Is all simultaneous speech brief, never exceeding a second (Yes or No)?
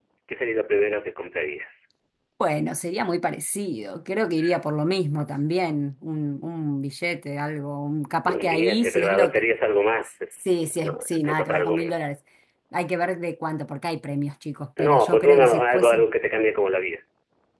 No